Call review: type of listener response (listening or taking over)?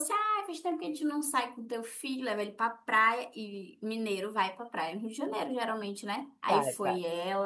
listening